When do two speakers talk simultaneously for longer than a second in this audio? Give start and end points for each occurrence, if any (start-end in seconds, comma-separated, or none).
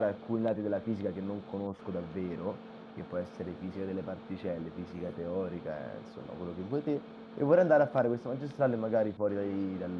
none